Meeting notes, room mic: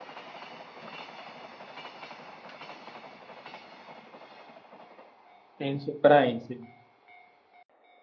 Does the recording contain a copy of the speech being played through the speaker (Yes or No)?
No